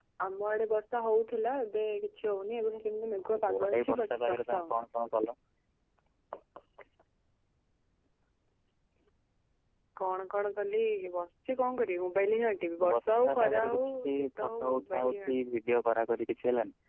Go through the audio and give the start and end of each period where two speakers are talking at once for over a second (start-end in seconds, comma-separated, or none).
3.5-4.8, 12.9-15.4